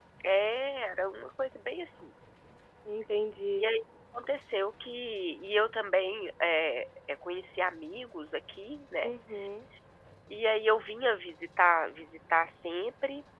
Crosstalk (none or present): none